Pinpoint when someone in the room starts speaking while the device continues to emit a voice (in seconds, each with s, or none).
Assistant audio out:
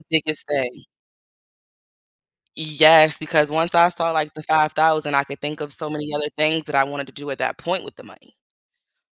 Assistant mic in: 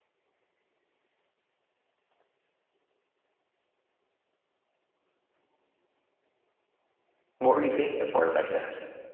7.4 s